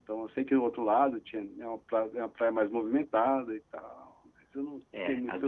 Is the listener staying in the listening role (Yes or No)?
No